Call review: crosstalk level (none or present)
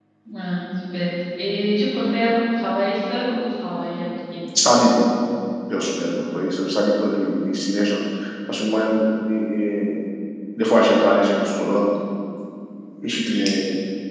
none